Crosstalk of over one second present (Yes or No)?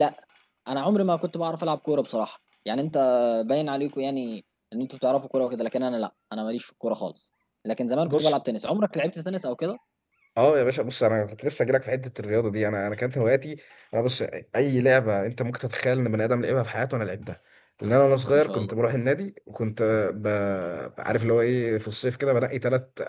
No